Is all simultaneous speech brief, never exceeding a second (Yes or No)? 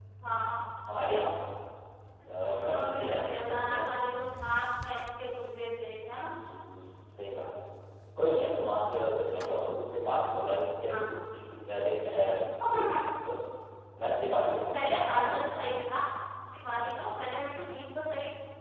No